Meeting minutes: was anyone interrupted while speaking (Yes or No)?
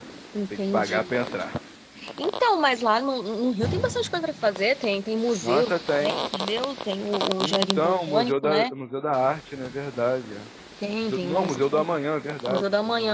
Yes